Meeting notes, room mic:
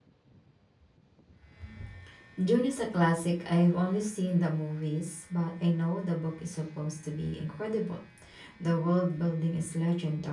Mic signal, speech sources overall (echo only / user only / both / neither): user only